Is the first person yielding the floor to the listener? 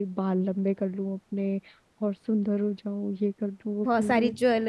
Yes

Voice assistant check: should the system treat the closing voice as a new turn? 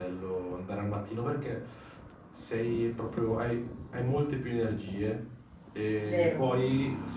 No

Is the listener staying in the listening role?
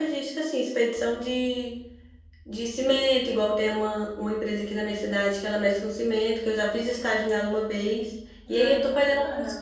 Yes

